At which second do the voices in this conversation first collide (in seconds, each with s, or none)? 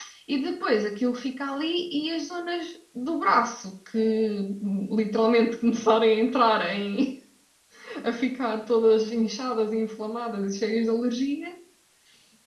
none